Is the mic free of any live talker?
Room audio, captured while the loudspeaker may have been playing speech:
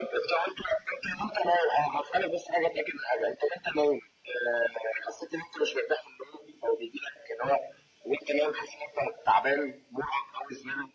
Yes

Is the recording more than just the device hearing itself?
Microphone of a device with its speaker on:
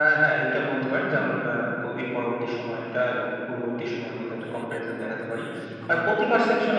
Yes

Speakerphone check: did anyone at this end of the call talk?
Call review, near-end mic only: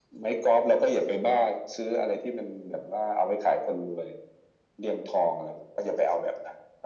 No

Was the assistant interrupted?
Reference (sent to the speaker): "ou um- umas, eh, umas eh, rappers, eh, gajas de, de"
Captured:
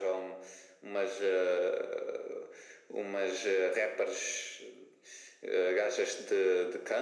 No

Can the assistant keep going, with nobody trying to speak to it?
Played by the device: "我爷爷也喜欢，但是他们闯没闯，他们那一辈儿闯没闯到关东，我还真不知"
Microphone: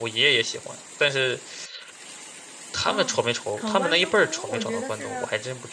No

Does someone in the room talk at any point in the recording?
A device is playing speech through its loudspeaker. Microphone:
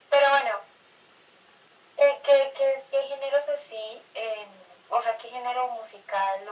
No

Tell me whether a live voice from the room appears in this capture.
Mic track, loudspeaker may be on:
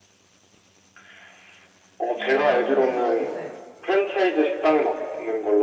Yes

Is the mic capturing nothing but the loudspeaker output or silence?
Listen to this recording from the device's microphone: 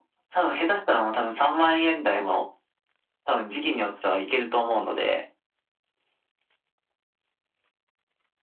Yes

